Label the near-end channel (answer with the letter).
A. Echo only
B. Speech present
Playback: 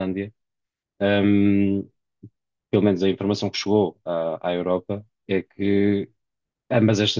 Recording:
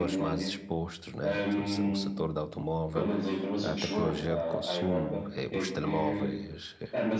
B